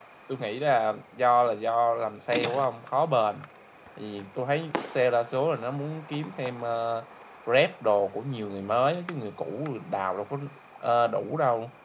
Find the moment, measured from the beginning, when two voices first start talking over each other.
none

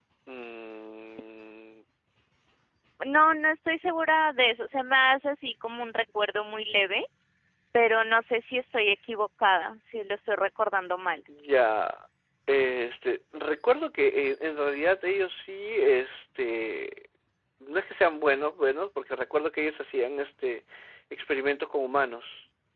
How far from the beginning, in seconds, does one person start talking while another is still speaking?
none

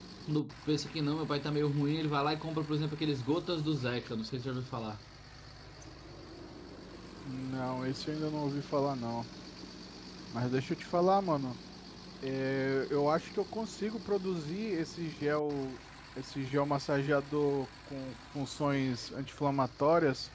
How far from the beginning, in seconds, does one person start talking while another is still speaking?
none

